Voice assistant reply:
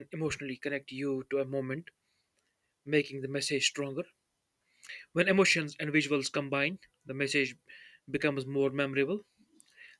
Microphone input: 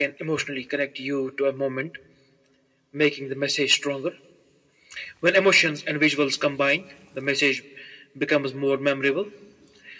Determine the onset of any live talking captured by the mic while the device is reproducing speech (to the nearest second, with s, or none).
none